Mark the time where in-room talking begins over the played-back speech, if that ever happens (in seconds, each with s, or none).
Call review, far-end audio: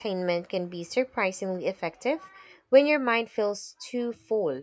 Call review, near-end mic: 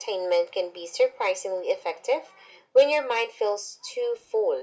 none